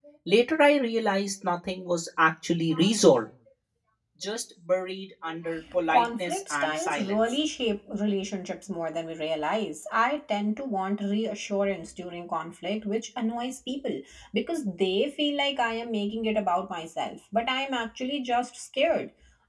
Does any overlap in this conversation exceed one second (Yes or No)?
Yes